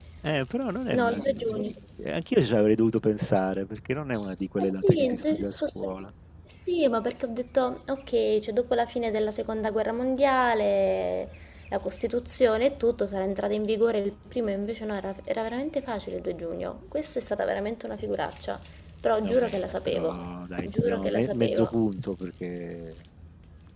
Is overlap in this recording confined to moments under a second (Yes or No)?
No